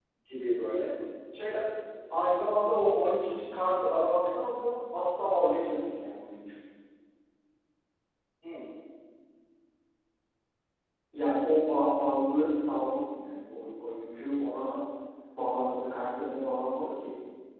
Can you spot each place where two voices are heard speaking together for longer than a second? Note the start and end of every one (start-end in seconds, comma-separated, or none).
none